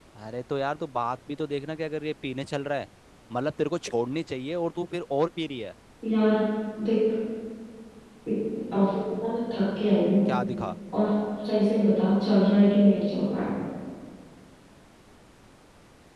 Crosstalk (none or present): none